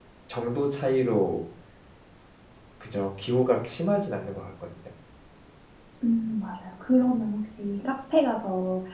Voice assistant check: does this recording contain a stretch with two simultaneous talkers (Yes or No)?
No